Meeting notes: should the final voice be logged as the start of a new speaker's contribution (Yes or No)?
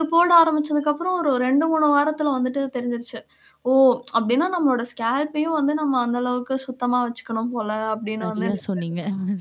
Yes